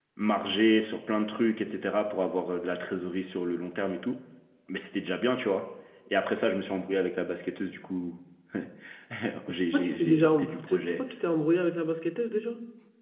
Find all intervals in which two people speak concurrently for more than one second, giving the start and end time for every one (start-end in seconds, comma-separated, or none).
9.7-11.0